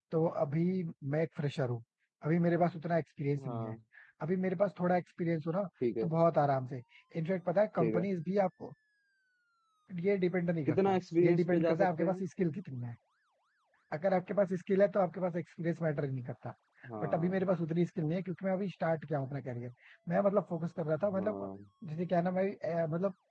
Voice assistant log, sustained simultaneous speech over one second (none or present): present